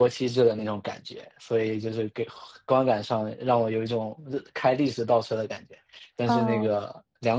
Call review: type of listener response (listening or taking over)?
listening